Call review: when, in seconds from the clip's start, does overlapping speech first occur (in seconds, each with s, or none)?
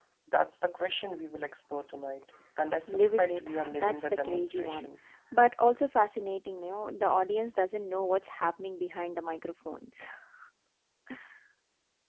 2.9 s